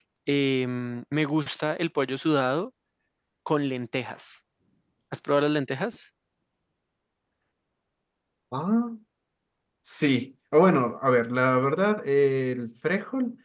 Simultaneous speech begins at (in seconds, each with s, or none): none